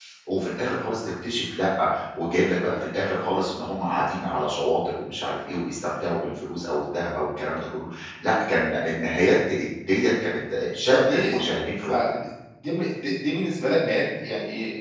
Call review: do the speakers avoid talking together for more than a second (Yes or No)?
Yes